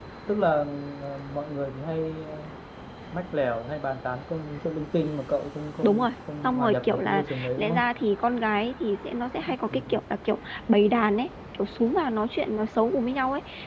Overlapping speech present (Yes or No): Yes